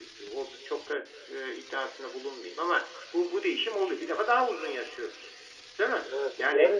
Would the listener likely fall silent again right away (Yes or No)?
No